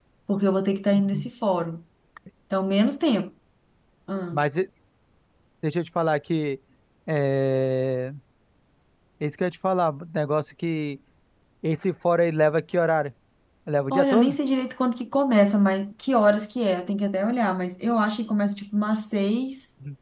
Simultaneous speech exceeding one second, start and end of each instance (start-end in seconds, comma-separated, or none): none